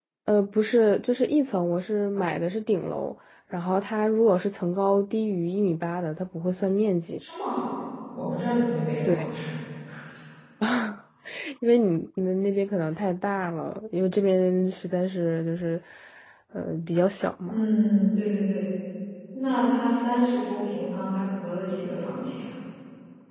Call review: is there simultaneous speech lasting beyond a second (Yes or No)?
No